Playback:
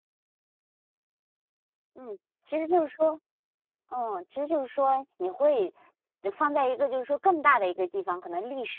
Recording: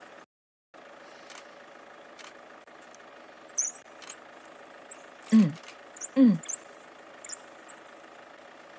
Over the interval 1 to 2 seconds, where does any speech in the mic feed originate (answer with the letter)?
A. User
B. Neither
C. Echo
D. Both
B